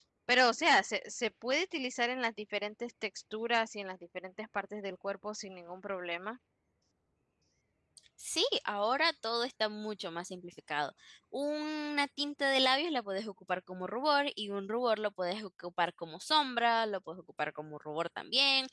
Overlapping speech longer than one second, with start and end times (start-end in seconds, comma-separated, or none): none